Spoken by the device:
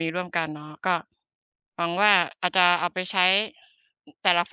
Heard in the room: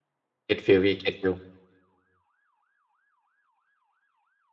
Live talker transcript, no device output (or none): get feel พี่ get feel